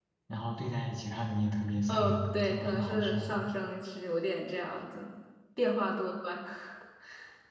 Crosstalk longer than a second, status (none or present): present